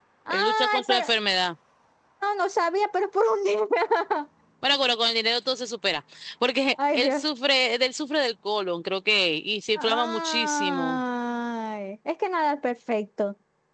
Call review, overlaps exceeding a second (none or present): present